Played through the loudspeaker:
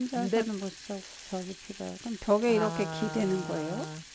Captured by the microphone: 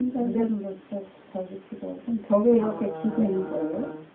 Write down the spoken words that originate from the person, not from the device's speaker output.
none

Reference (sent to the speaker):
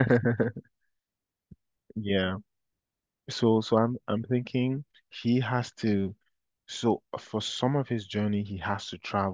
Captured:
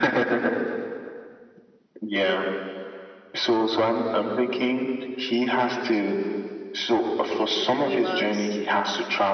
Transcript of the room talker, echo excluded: to get to the people he loves.

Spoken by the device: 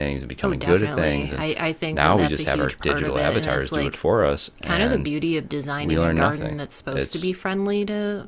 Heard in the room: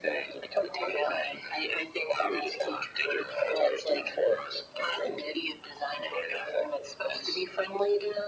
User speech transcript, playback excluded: none

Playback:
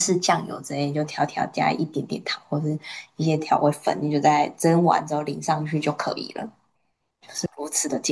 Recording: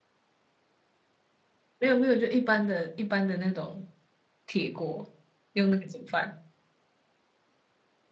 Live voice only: 没有没有，就一般的一般的那种铁锅，用那个煮饭。

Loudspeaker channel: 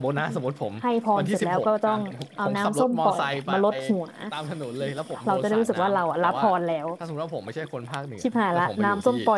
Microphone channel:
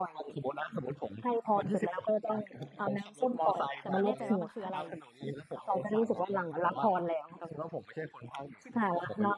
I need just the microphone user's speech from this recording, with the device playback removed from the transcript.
แต่ไม่แน่ใจว่ามันคืออะไร

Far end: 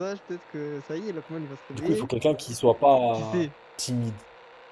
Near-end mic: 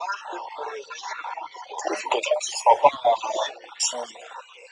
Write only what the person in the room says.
none

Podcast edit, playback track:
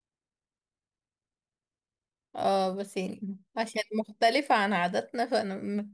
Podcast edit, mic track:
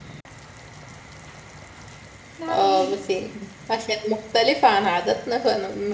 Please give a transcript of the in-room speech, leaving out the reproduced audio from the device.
ده حقيقي

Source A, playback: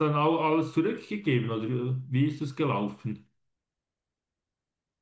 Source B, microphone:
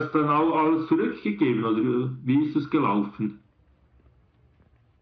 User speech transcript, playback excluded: none

